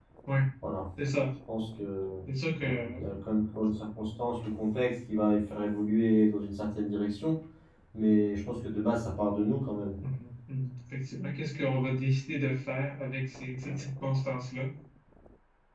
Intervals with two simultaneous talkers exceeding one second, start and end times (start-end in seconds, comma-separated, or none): none